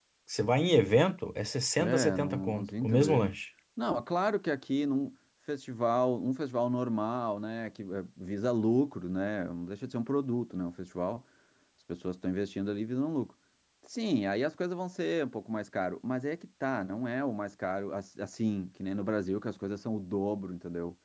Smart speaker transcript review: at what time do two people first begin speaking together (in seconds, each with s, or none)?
1.8 s